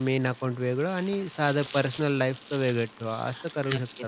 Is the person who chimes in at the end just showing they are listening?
No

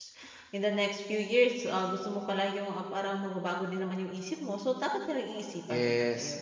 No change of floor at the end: No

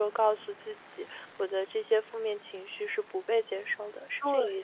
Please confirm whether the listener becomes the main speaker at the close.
Yes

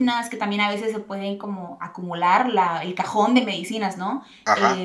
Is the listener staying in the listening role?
No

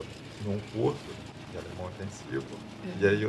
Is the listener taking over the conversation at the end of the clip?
No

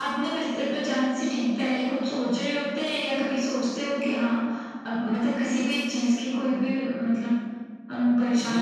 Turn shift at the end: Yes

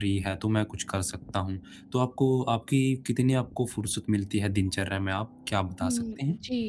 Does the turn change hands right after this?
Yes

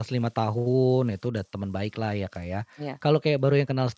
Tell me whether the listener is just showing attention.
Yes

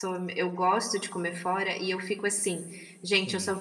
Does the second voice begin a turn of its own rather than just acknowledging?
No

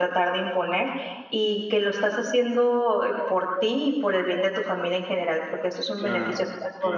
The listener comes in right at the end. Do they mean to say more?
Yes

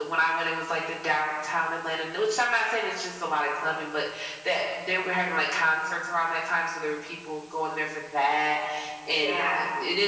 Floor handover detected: No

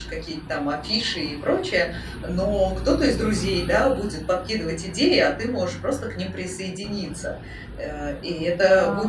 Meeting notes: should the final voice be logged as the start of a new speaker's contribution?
No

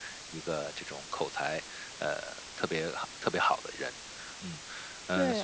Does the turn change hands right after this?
Yes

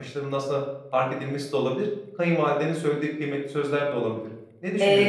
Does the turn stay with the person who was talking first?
No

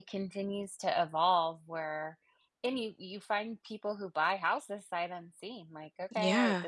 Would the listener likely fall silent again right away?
Yes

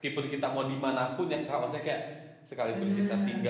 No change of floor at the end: Yes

